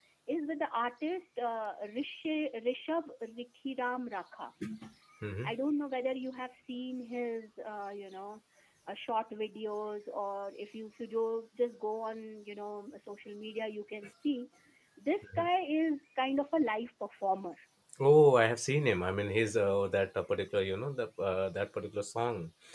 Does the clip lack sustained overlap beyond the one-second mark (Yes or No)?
Yes